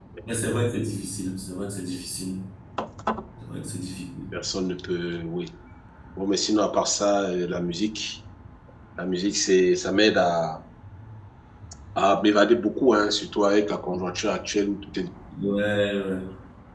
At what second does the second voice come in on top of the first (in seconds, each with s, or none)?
none